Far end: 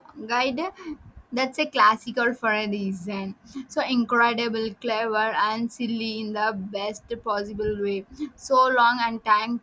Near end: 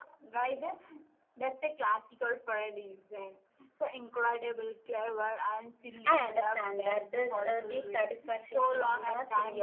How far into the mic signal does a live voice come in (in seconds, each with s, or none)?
6.0 s